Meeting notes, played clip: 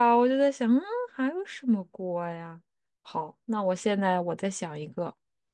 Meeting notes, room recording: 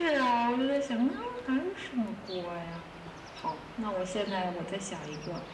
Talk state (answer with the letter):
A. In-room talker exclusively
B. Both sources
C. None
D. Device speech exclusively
D